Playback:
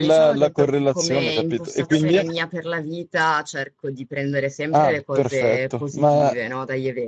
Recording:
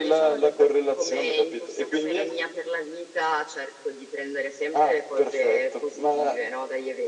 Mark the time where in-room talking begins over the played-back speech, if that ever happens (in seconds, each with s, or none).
none